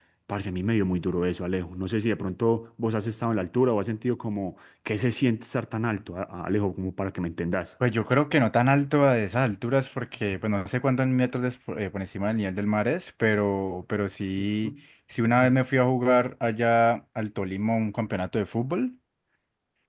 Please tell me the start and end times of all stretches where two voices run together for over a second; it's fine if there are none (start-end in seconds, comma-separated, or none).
none